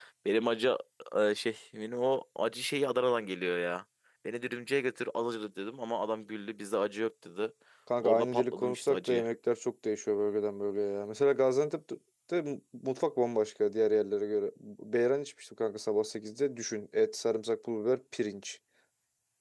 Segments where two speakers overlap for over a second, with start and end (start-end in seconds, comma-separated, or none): 8.0-9.3